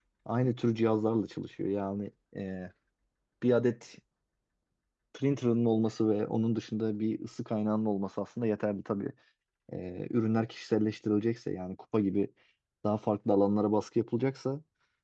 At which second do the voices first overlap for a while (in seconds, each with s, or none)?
none